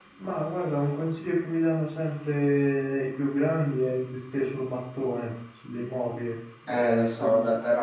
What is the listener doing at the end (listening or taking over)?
taking over